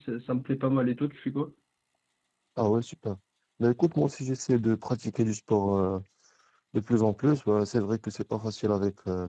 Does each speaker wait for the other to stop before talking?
Yes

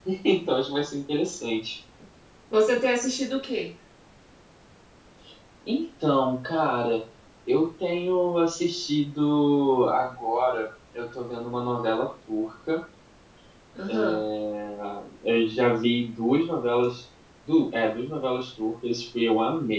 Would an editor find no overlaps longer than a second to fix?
Yes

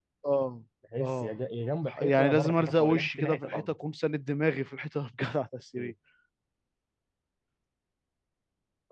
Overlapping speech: Yes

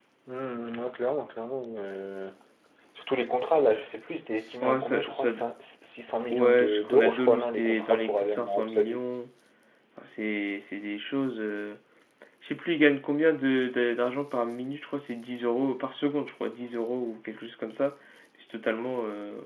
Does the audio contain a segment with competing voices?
Yes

